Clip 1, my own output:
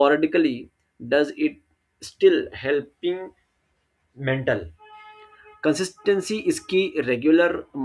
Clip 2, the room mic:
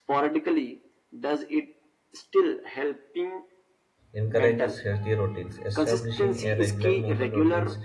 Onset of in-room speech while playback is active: 4.1 s

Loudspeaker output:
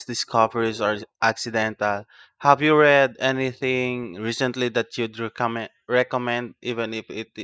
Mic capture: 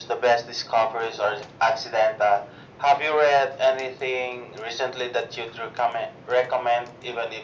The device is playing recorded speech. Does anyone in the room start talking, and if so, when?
none

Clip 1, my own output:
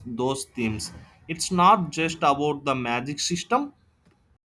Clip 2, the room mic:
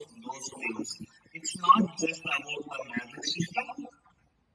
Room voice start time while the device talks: none

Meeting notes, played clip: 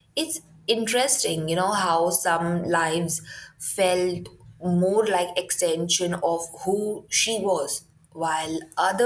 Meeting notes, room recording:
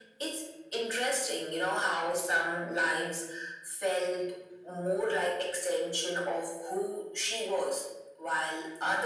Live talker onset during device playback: none

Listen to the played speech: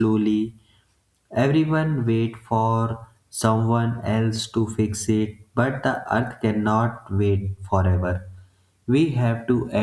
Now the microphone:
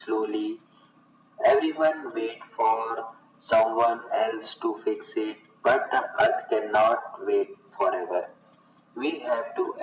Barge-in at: none

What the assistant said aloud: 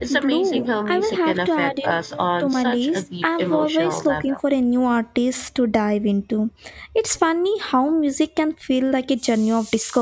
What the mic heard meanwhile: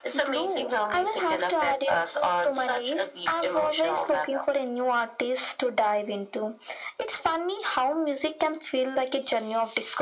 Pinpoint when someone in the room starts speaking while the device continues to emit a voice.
none

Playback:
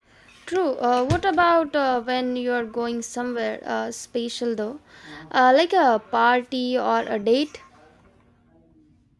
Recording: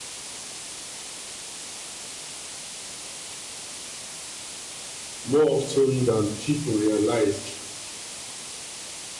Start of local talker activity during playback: 5.2 s

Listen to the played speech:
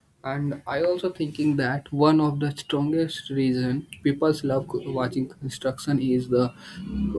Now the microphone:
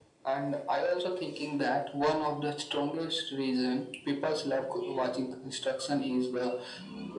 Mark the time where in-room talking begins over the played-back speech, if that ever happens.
none

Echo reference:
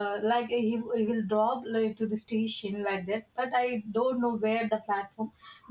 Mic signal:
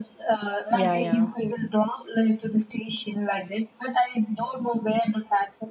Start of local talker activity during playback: 0.7 s

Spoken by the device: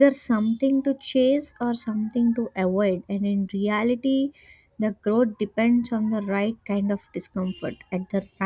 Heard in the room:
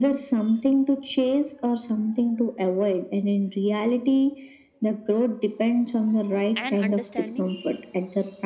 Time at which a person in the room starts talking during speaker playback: 6.6 s

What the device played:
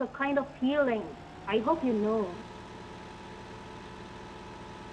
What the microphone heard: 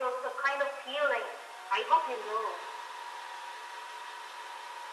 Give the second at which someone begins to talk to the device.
none

